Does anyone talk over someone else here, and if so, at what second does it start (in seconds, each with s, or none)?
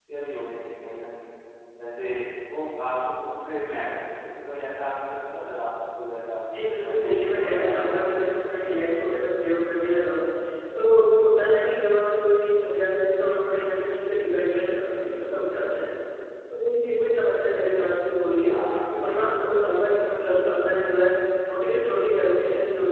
6.8 s